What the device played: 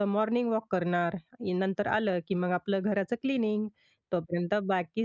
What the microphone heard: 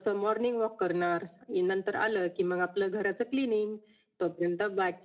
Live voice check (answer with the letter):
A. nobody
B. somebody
A